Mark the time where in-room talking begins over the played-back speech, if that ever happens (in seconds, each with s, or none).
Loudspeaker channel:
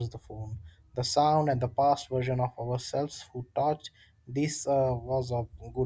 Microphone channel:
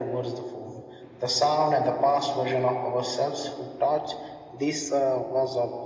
none